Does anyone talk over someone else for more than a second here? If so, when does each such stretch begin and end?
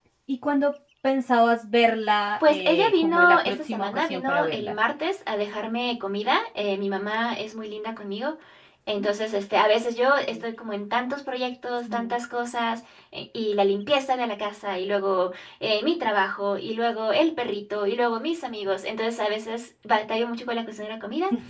2.4-4.8

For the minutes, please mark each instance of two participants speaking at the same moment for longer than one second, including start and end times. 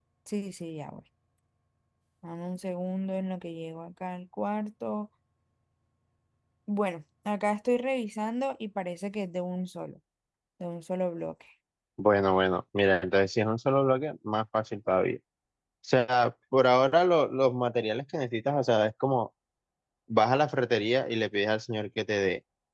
none

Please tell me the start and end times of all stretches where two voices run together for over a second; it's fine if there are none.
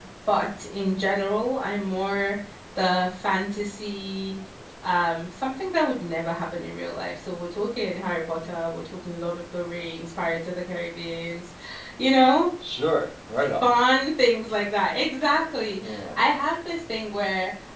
none

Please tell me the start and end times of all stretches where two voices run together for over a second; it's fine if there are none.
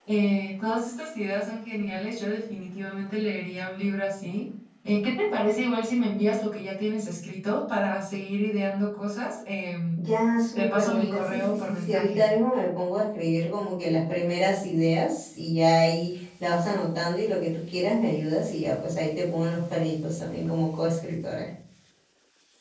10.6-12.2

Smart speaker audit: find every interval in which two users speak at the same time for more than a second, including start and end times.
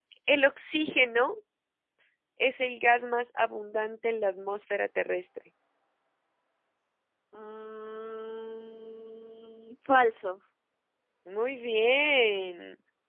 none

